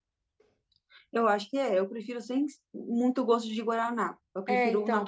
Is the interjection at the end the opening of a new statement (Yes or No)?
Yes